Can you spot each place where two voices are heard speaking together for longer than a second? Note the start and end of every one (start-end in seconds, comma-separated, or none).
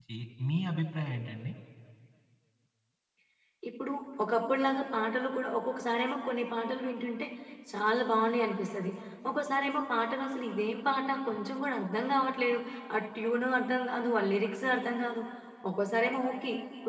none